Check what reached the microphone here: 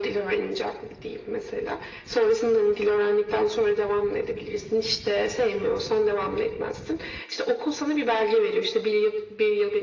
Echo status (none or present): present